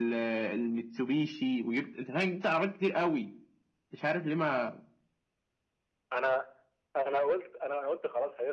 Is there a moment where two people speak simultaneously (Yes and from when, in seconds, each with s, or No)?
No